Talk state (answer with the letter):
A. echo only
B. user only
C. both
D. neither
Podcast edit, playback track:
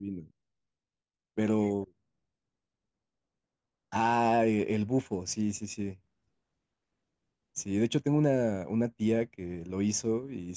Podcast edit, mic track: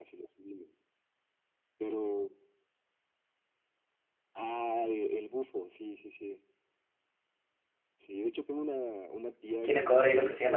C